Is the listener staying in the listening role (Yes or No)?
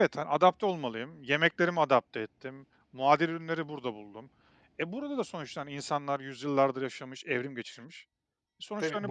No